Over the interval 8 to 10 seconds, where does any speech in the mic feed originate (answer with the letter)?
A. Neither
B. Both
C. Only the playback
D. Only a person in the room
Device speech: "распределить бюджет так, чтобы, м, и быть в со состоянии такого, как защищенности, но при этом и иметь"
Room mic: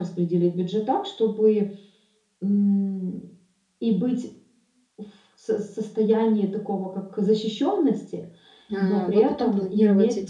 B